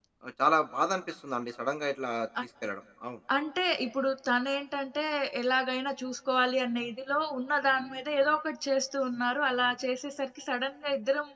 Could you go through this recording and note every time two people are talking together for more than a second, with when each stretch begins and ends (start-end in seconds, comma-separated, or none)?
none